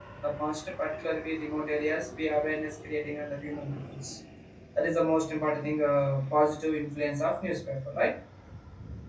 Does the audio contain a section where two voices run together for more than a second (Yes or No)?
No